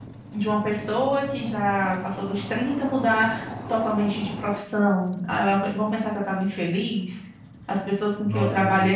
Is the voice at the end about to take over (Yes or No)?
Yes